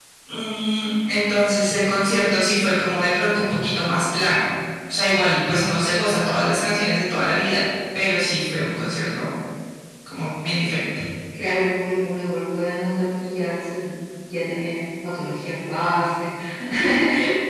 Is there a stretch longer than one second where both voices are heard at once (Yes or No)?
No